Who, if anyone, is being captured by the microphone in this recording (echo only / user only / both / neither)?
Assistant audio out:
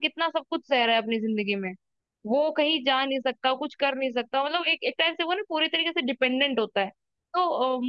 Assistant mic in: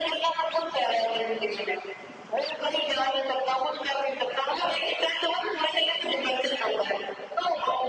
echo only